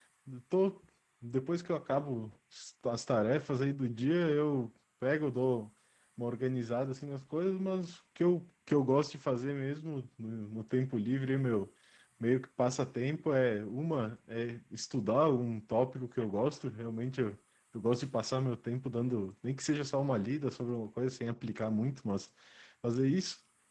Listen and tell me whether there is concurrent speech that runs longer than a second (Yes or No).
No